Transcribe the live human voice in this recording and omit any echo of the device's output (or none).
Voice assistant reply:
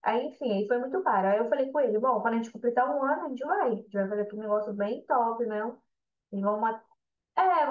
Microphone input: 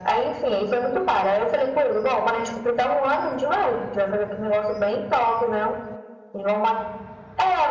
none